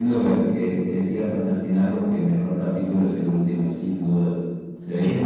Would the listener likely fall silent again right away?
Yes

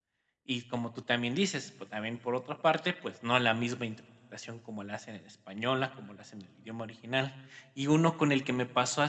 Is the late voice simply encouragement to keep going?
Yes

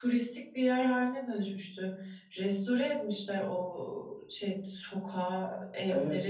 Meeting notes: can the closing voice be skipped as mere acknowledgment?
No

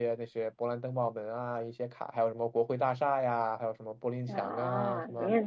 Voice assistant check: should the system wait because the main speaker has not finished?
No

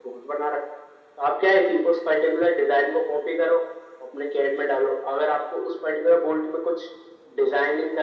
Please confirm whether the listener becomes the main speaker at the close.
No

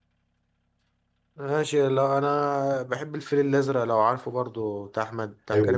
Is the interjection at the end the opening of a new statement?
Yes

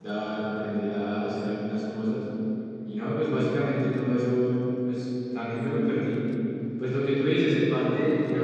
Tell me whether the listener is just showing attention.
Yes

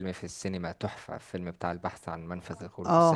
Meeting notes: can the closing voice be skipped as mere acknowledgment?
No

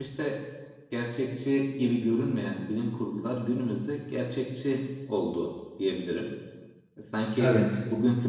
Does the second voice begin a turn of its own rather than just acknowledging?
No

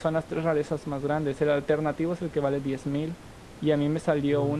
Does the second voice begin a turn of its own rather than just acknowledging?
No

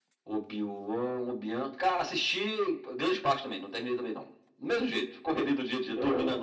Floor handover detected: Yes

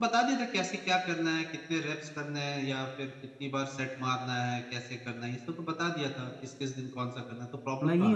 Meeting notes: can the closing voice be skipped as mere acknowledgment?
No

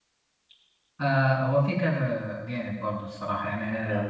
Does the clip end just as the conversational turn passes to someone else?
No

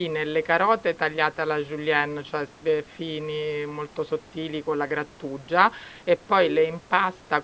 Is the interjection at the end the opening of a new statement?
No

